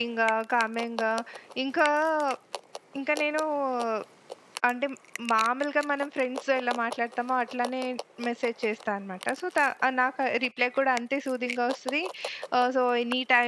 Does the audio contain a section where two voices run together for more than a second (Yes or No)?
No